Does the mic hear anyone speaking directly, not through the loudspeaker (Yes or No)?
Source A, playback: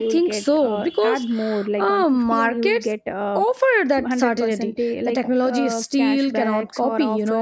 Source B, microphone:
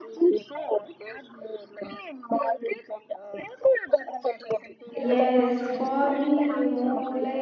Yes